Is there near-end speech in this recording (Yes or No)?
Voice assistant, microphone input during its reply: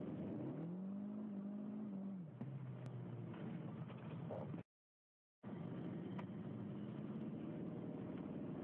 No